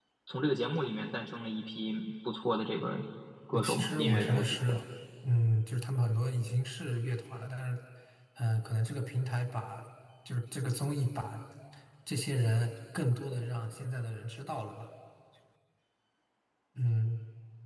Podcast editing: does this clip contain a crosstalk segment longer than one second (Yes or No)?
Yes